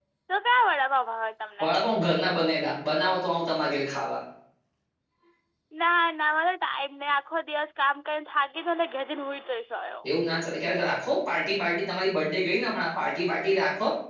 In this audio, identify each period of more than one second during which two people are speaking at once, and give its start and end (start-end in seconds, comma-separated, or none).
none